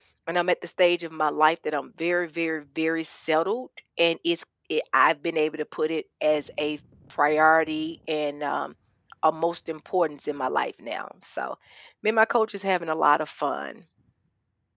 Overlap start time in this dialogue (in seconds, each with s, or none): none